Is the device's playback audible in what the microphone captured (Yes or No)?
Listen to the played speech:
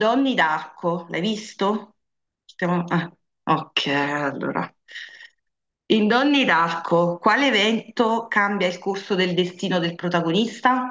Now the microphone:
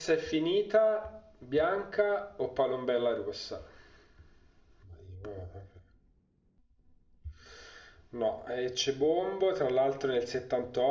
No